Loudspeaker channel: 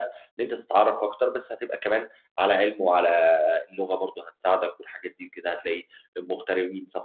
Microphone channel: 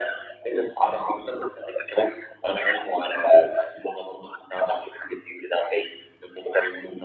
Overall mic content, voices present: echo only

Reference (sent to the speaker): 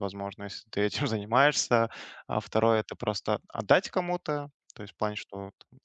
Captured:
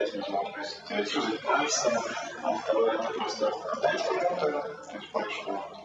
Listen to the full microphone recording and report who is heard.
echo only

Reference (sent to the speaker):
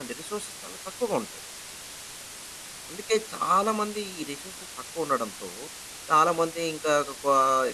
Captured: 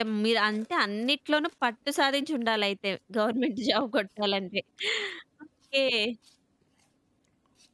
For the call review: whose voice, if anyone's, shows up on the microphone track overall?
user only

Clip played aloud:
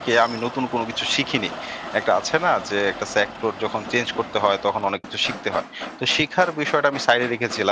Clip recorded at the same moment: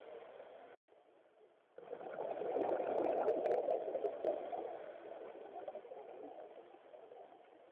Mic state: neither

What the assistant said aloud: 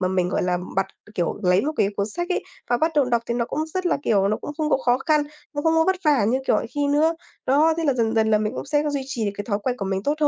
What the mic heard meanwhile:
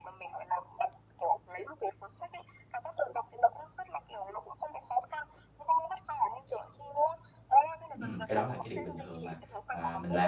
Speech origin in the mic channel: both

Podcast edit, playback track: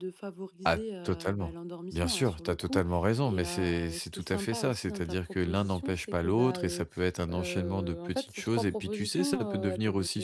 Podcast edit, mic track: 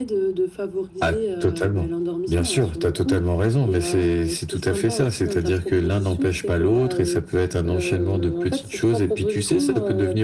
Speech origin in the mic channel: echo only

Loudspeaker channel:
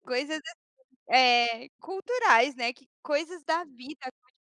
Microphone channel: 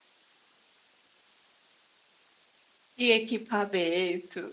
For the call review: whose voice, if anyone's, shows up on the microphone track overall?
user only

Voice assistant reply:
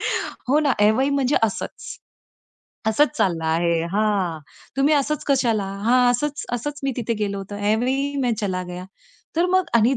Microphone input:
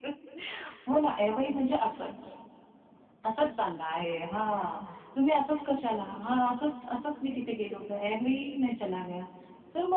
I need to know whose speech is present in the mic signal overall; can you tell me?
echo only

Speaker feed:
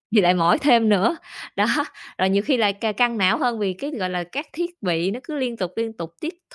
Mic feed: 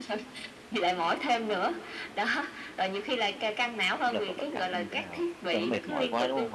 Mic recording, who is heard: both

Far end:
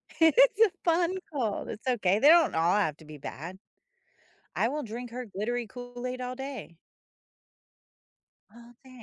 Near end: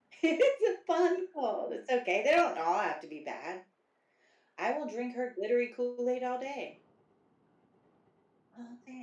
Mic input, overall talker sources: echo only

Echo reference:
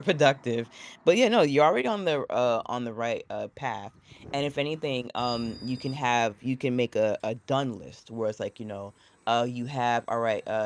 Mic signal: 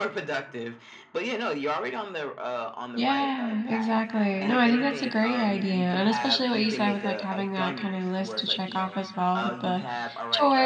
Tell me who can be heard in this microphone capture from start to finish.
both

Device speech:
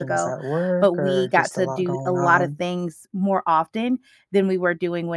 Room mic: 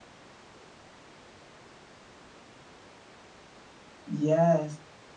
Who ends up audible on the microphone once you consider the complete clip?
user only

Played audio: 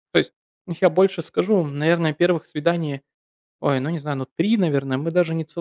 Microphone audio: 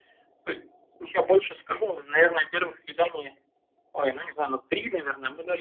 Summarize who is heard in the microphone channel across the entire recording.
echo only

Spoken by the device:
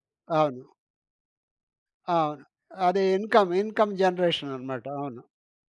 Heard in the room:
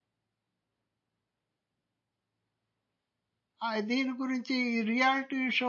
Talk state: user only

